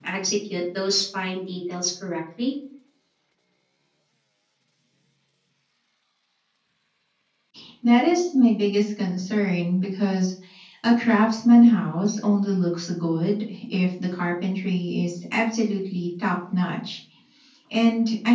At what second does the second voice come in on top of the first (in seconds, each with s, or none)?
none